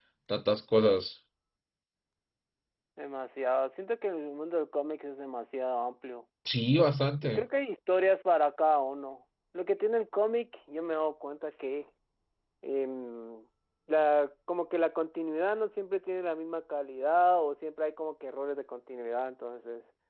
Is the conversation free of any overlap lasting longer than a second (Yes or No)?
Yes